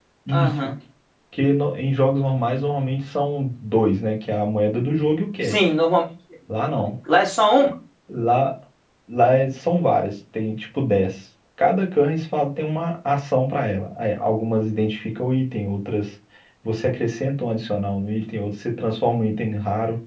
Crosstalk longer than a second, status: none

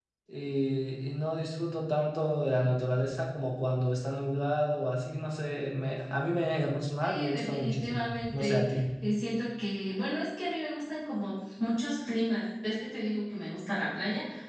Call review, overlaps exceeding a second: present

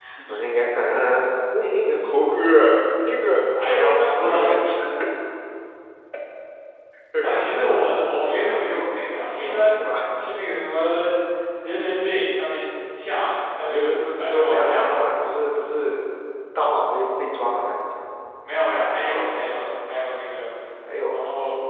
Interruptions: present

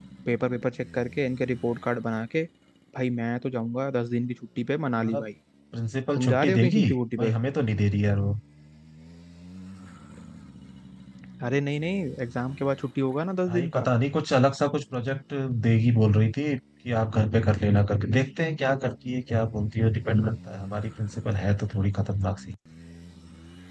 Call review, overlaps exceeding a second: present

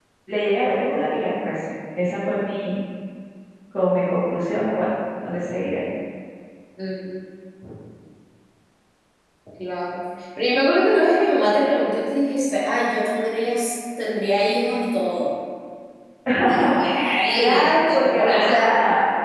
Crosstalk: present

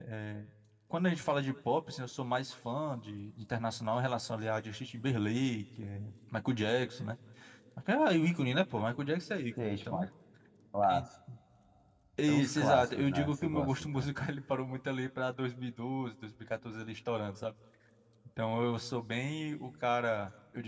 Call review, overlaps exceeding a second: present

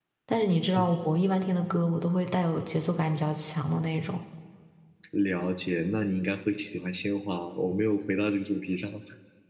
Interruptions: none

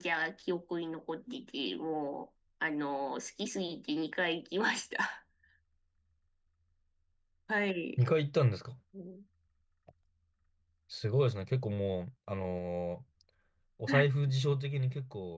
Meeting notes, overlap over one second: none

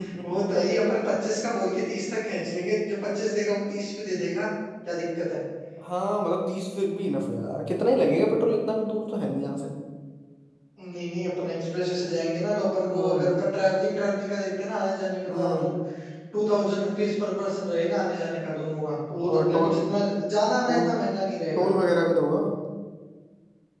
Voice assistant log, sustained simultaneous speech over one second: none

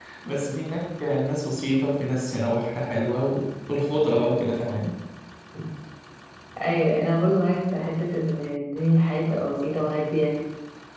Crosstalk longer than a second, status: none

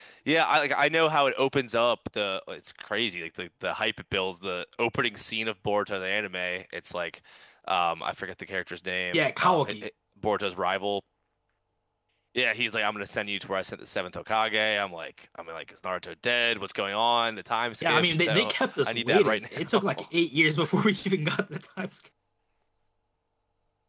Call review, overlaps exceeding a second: present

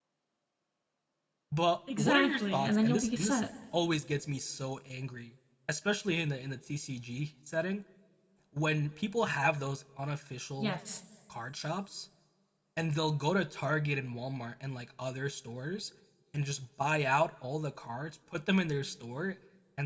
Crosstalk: present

